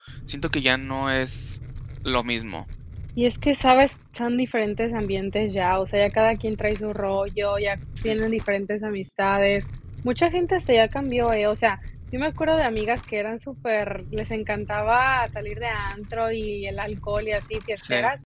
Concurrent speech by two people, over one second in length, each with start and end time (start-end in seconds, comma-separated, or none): none